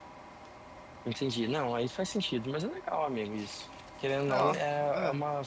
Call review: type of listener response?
listening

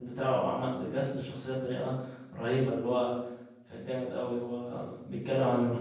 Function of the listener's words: listening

